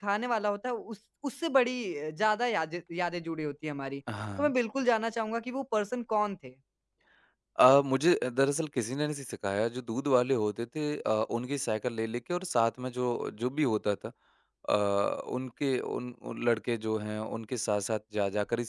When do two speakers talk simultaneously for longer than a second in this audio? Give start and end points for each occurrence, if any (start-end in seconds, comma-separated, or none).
none